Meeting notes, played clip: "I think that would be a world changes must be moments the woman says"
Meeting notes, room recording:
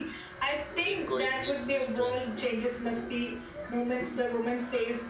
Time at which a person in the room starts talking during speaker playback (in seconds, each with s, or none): 0.8 s